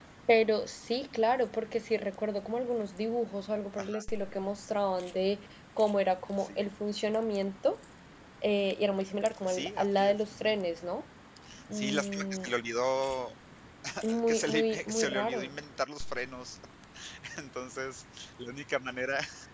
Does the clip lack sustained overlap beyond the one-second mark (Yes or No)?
No